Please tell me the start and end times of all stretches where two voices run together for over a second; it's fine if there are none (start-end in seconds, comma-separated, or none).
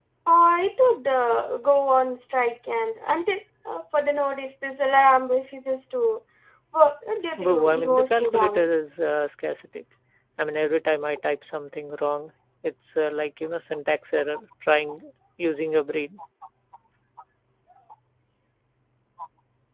7.4-8.7